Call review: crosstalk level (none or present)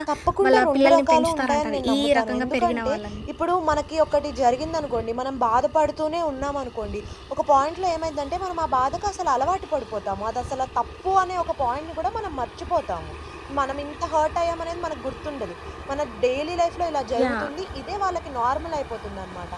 present